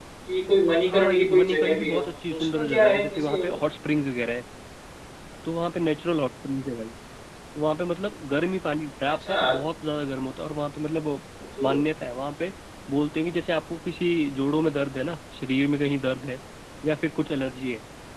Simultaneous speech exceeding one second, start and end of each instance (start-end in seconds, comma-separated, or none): 0.9-3.5